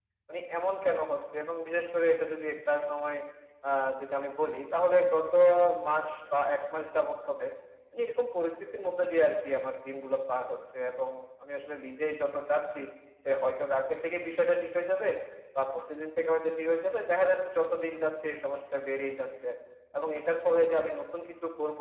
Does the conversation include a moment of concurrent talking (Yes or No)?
No